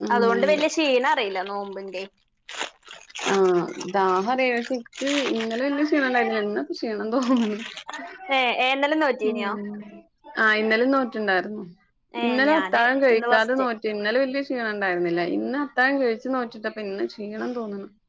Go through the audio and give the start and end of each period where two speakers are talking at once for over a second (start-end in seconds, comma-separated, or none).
12.3-13.6